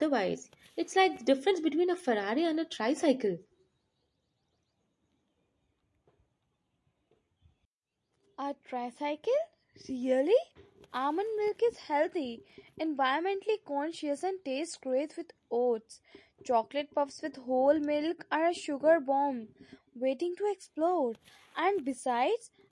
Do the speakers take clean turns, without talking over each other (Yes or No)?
Yes